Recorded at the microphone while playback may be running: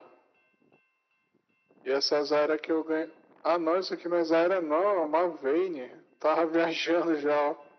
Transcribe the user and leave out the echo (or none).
none